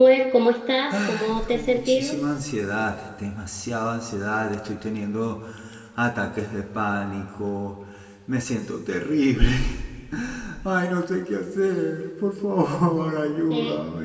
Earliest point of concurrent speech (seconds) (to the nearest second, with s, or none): 1 s